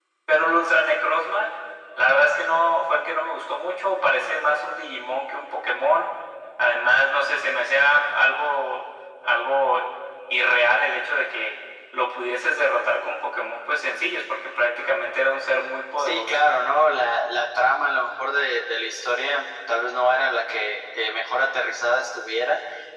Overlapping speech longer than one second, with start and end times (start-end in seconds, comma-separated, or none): none